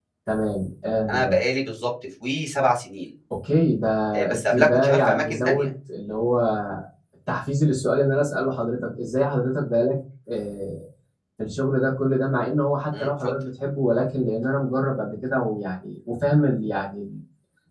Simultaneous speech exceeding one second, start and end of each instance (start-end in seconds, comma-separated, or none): 4.3-5.7